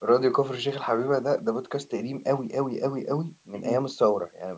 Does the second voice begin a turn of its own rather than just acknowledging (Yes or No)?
No